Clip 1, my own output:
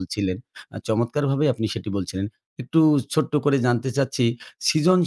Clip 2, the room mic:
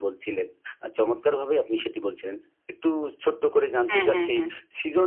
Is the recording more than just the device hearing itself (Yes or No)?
Yes